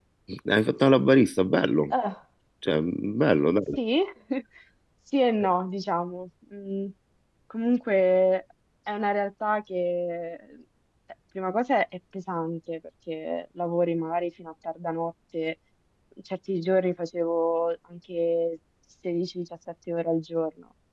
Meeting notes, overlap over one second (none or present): none